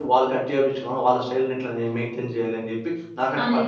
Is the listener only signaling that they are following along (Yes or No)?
No